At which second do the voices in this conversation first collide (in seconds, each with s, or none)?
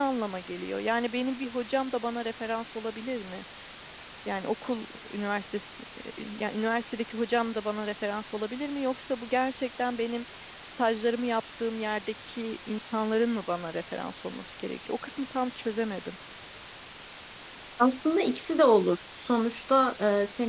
none